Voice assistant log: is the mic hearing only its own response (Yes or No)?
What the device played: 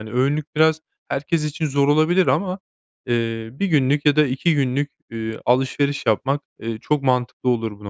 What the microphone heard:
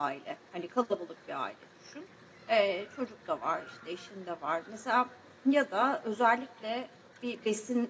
No